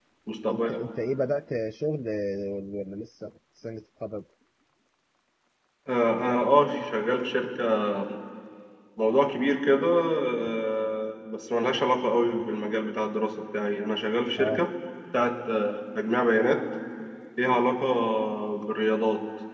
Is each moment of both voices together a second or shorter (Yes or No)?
Yes